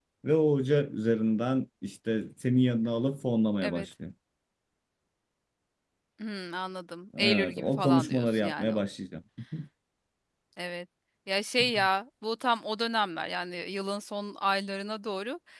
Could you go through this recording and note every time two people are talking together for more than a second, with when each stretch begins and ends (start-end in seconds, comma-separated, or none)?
7.2-8.7